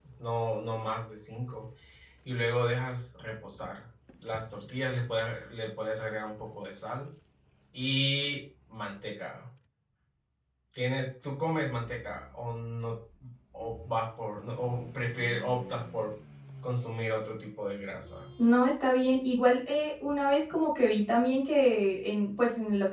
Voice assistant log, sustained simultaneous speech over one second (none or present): none